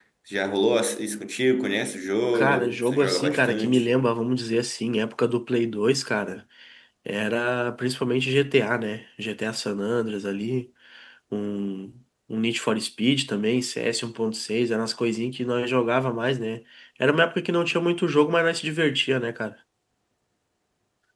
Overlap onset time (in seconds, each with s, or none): 2.3 s